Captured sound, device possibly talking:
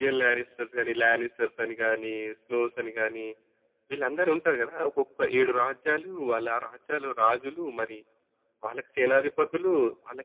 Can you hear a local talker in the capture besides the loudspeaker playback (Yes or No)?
No